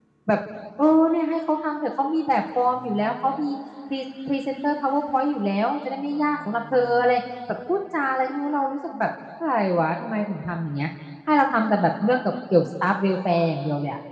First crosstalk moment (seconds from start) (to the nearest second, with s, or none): none